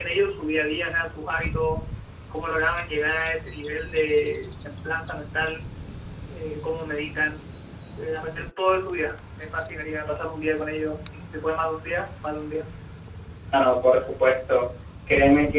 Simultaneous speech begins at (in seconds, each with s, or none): none